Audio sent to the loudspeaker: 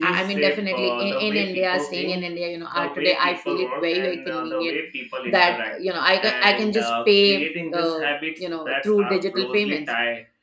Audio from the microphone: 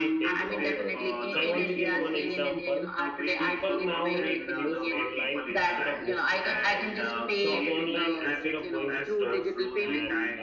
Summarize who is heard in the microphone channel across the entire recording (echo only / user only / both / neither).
both